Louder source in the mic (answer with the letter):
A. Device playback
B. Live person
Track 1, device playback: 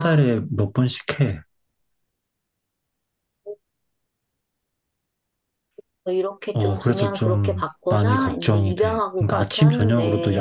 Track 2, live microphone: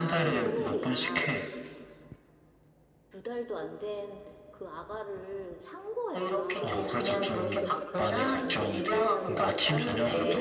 A